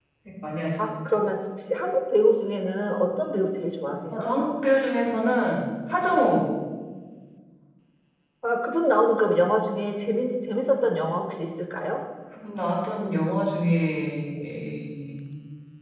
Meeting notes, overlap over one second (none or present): none